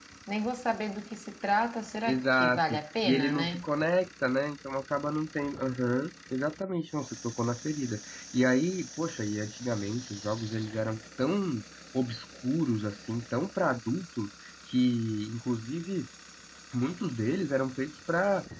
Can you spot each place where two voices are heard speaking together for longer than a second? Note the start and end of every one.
2.0-3.6

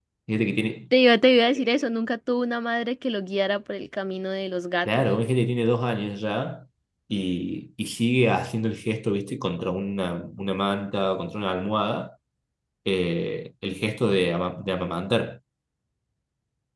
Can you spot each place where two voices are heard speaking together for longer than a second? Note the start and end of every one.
none

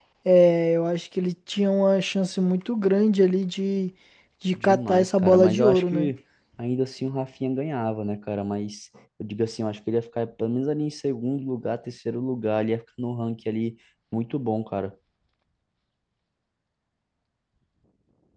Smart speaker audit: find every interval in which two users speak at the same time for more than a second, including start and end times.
4.5-6.1

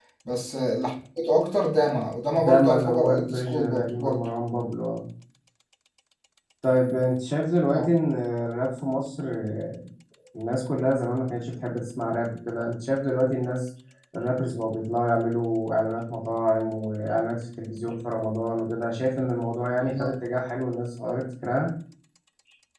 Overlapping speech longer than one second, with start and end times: 2.4-4.3

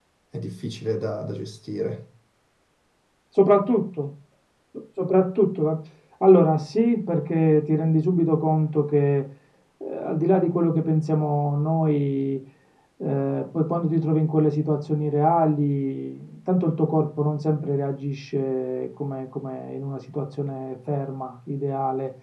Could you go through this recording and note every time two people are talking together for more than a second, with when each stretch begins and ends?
none

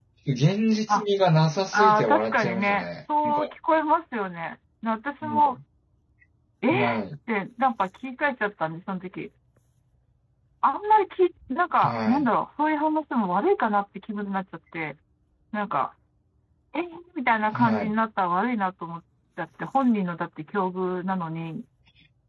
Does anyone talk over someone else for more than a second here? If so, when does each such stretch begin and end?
1.7-3.4

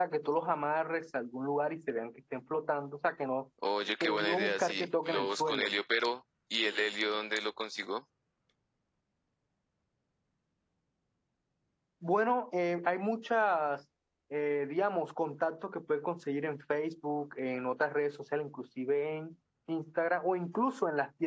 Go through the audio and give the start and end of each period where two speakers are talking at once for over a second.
4.0-5.7

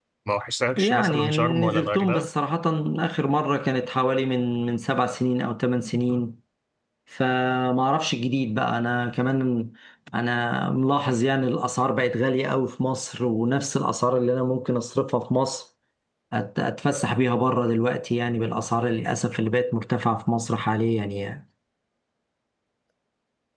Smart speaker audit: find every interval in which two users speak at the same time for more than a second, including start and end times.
0.8-2.3

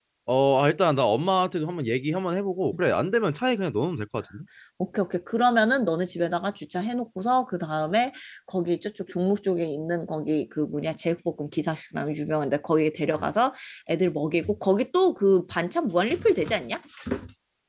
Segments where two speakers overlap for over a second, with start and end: none

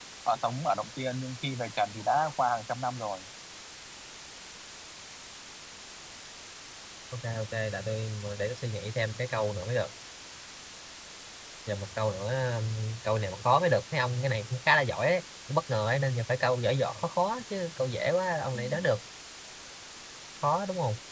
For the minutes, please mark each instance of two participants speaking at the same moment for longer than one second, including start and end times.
none

